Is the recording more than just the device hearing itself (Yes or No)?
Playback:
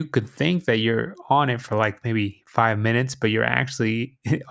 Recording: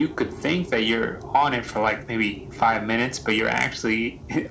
No